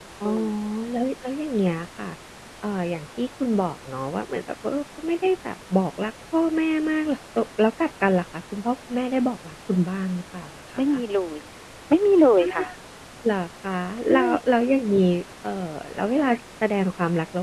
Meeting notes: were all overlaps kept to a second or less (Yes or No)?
Yes